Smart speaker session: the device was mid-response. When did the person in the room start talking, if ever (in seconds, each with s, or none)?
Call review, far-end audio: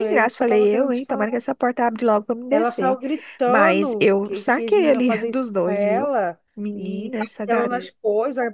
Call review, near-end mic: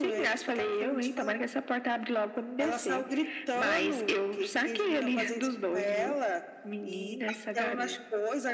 none